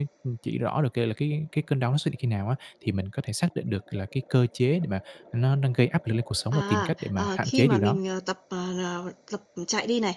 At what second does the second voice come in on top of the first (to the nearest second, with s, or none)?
7 s